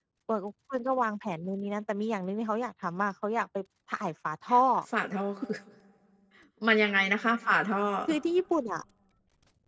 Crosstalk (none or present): none